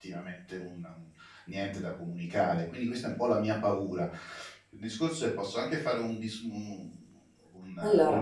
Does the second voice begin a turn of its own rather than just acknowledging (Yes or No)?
No